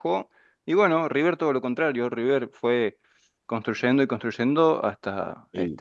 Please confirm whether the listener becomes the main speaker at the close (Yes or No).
Yes